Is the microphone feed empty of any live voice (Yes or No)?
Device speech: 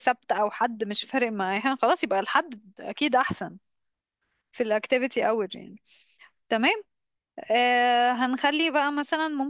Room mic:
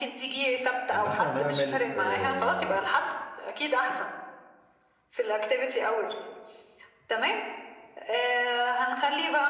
No